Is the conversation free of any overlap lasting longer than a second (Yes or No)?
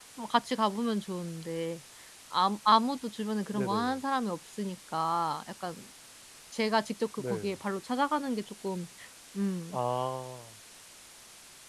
Yes